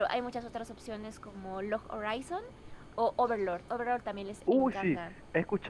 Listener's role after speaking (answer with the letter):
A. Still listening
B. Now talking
B